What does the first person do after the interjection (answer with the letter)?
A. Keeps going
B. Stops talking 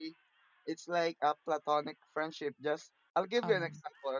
A